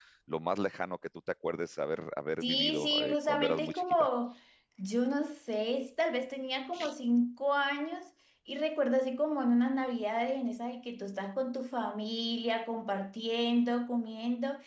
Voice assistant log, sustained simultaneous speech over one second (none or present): present